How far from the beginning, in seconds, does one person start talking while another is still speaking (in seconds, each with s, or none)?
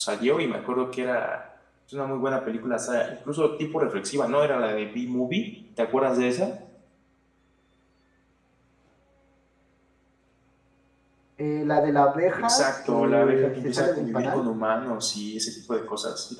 12.5 s